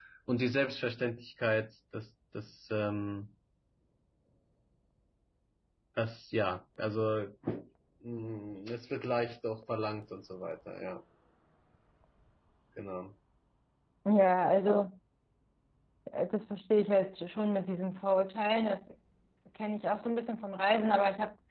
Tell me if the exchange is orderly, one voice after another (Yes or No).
Yes